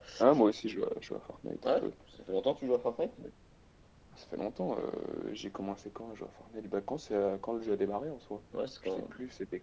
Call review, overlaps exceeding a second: none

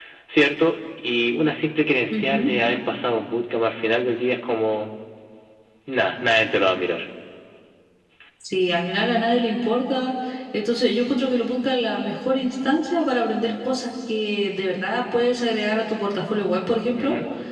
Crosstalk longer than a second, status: none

